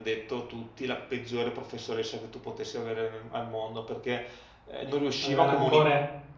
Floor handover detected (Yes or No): No